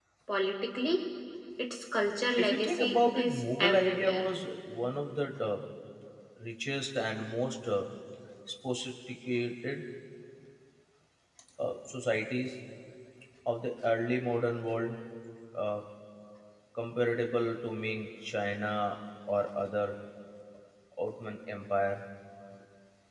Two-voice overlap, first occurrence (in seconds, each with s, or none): 2.4 s